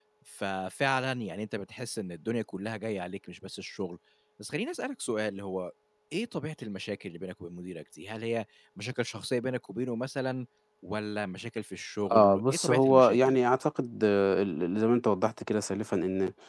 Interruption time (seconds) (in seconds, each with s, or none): 12.0 s